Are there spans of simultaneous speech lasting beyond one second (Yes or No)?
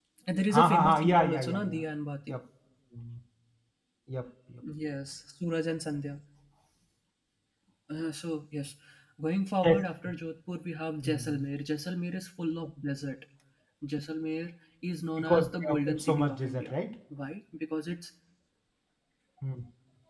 Yes